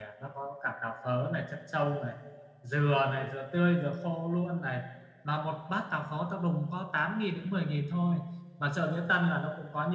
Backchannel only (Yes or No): Yes